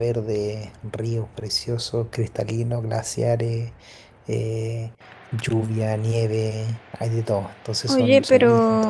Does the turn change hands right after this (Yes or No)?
Yes